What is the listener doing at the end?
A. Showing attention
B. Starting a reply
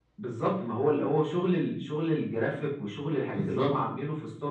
A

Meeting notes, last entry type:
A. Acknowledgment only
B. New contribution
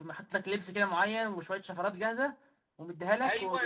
B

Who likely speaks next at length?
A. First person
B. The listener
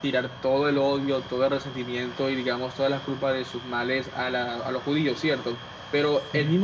A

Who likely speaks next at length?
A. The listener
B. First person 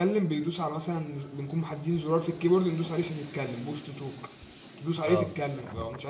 B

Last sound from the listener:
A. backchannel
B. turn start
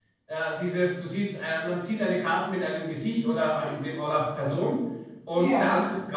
A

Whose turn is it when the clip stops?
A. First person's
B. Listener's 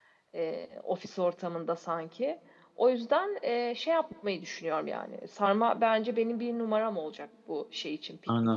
B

